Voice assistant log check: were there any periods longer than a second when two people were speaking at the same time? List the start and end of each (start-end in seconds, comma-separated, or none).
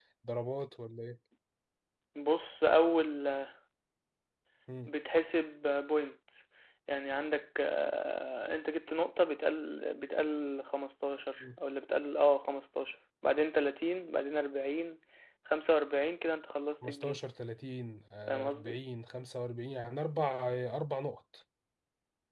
none